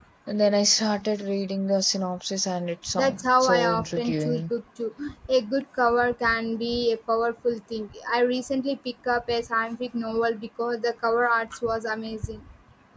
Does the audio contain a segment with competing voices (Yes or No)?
Yes